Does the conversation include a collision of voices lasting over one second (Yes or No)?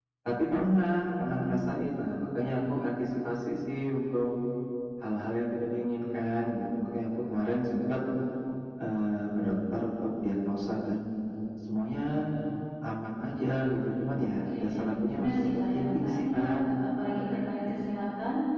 Yes